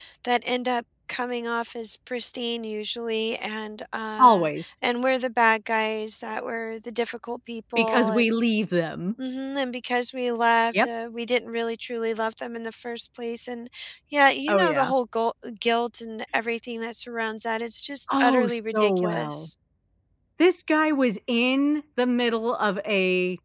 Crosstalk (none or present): present